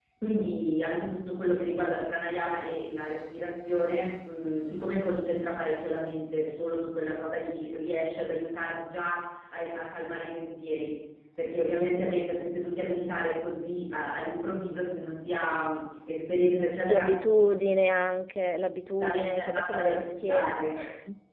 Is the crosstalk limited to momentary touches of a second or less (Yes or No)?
No